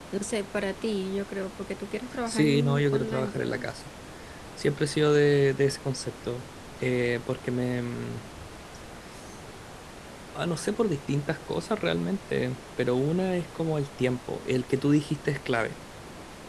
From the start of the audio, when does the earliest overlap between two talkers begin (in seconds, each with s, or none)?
2.3 s